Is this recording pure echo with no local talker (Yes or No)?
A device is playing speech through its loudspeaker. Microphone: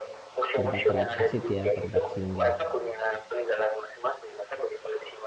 No